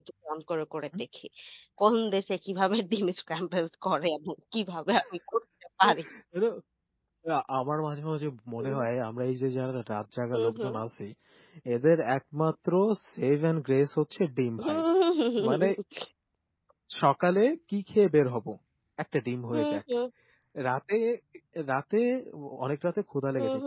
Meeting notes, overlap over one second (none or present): none